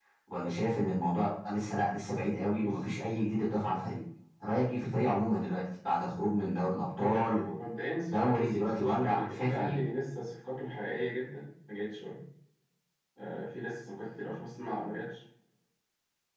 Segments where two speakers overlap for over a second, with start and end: 8.1-9.8

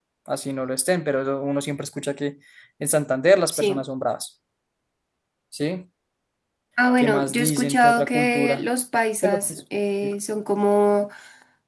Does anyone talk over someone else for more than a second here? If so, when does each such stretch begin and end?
7.0-8.6

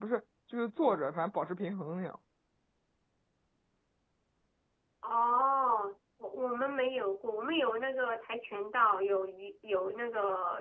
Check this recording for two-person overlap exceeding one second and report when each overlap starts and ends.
none

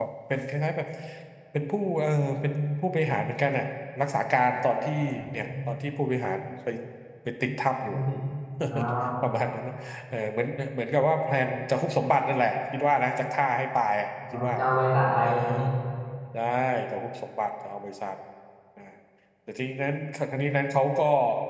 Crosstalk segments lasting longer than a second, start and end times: none

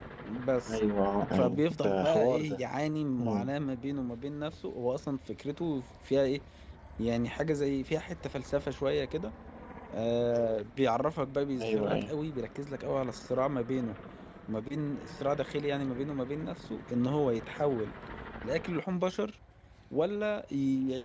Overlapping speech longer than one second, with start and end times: 1.3-2.6

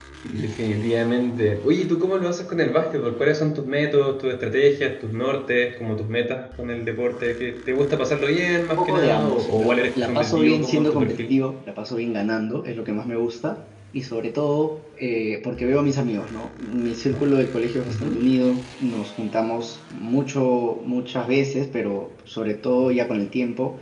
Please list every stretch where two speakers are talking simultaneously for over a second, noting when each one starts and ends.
8.7-11.4

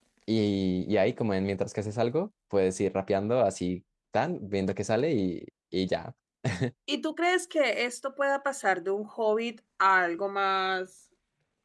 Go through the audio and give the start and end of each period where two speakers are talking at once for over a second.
none

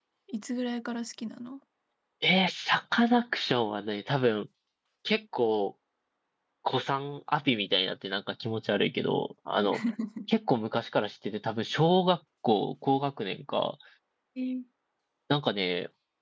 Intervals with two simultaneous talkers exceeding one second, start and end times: none

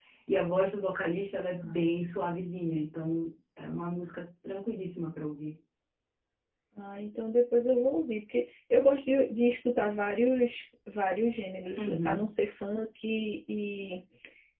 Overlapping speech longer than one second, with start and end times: none

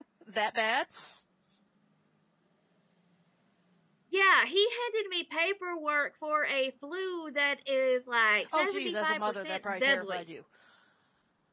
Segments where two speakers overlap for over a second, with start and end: 8.6-10.2

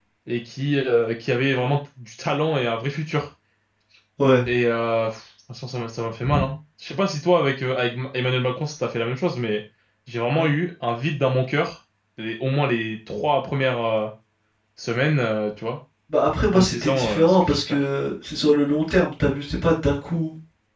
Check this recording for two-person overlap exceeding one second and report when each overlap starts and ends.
16.5-17.8

